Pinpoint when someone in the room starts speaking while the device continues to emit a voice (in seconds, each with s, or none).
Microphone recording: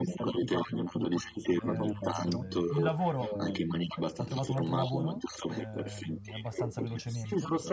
1.6 s